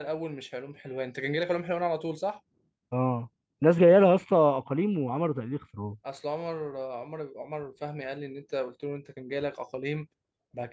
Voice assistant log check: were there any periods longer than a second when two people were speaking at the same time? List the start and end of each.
none

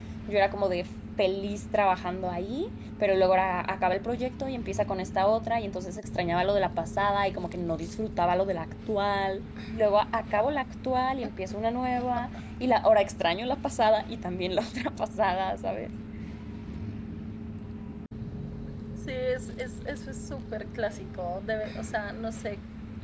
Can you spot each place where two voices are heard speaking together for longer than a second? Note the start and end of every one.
none

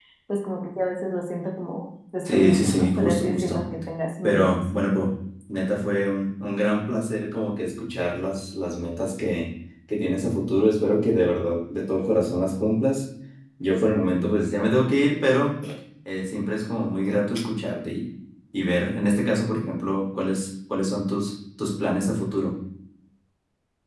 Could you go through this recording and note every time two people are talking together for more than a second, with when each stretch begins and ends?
2.3-3.6

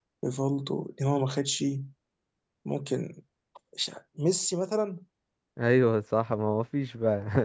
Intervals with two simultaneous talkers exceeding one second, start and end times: none

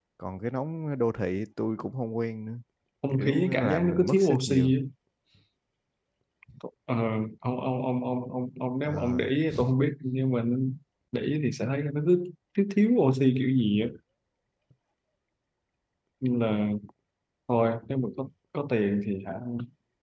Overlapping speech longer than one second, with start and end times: 3.1-4.7

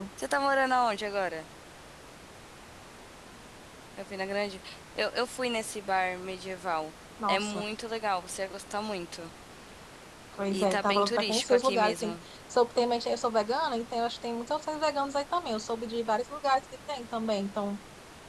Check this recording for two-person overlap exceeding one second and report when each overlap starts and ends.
10.5-12.2

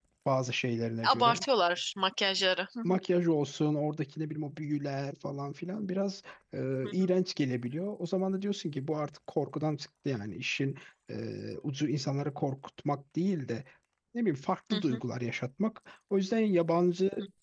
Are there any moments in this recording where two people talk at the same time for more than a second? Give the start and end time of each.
none

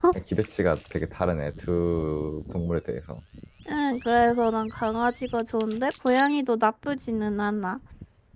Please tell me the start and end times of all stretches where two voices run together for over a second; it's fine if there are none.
none

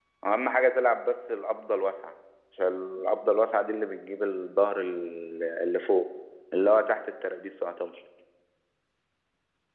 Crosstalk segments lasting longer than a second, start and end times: none

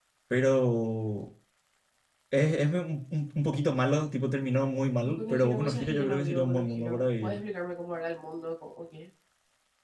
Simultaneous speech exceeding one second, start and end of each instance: 5.0-7.4

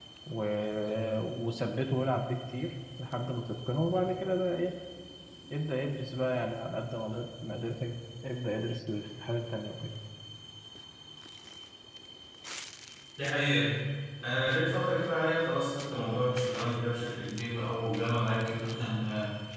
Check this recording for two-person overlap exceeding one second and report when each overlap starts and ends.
none

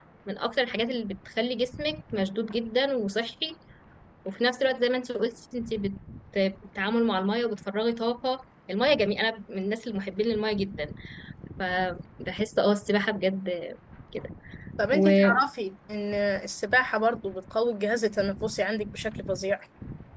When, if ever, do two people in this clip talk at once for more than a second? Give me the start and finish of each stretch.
none

